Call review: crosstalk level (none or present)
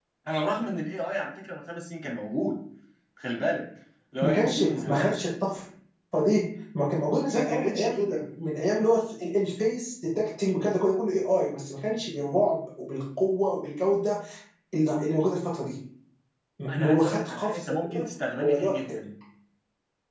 present